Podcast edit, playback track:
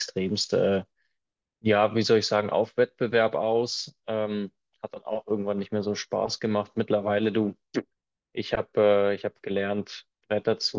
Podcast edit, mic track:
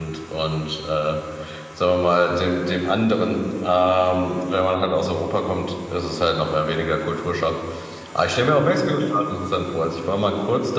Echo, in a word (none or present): none